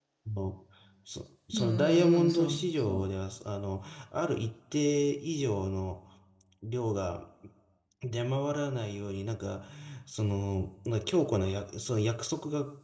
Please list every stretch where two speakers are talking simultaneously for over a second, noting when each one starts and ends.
1.5-3.1

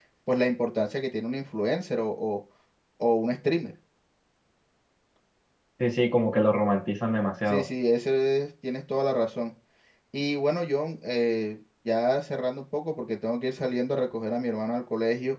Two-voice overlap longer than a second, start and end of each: none

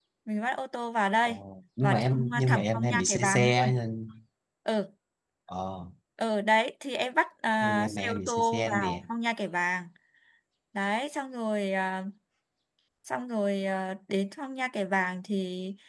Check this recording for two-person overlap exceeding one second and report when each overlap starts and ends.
1.8-3.7, 7.6-9.0

